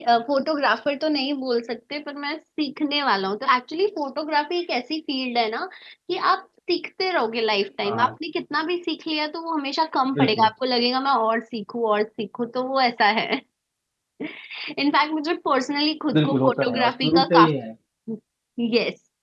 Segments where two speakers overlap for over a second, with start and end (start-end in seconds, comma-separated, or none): 16.2-17.5